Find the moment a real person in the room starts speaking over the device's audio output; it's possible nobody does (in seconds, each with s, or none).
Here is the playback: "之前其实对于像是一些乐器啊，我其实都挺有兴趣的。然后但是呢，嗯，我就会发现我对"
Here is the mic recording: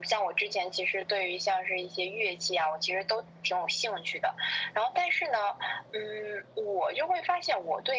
none